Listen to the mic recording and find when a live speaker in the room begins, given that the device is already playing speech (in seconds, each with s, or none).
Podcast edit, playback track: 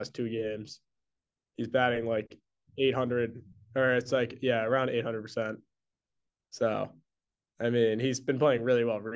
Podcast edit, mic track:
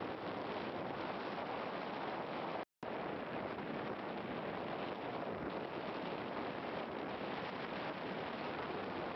none